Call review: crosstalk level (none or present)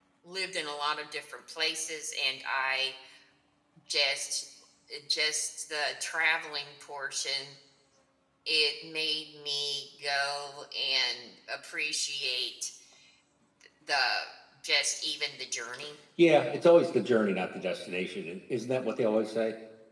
none